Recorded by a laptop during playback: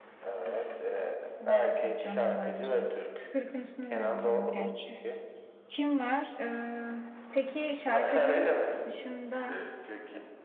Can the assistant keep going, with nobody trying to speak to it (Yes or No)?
No